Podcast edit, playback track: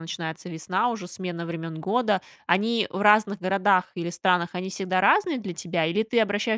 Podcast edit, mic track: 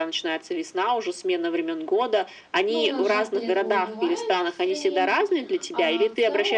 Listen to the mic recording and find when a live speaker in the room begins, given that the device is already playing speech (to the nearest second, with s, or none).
3 s